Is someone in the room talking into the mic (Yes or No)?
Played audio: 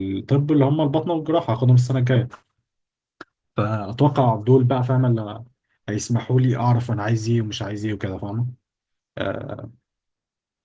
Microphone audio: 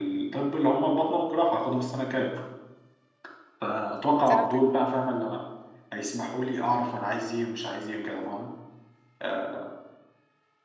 Yes